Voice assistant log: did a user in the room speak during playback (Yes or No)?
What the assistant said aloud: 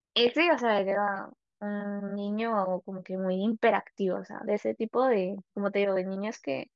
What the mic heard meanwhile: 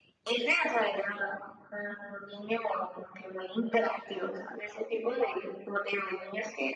No